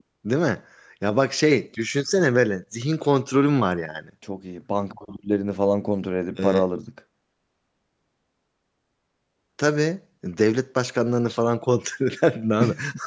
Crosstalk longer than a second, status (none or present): none